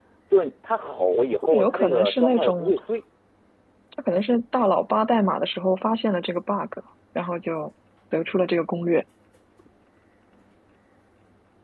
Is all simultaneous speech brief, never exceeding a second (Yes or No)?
No